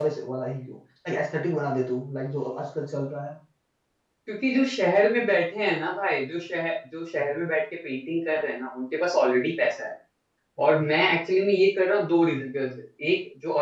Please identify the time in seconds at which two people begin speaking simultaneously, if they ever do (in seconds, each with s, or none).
none